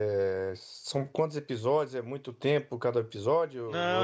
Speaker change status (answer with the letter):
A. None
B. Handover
B